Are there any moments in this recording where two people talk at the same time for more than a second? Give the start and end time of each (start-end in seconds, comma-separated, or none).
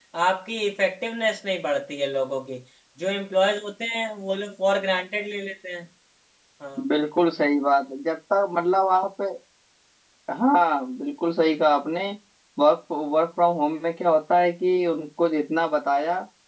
none